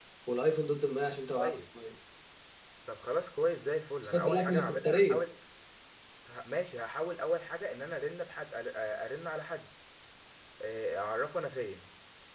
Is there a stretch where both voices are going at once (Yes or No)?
Yes